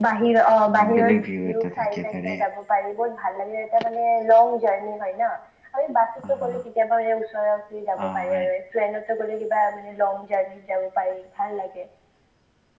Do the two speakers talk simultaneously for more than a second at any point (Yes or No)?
Yes